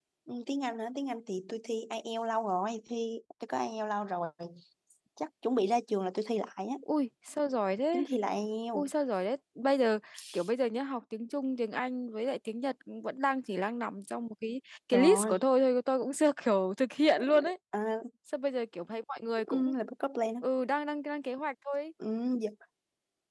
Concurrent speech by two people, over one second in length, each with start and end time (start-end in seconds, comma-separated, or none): none